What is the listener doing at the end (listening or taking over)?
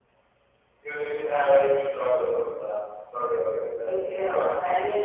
taking over